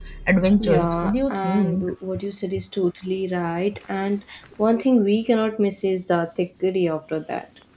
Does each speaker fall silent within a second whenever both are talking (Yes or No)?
No